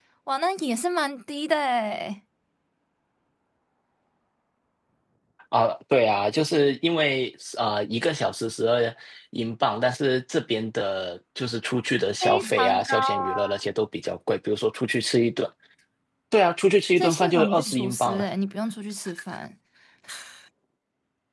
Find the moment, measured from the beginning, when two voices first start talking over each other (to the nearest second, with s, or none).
12 s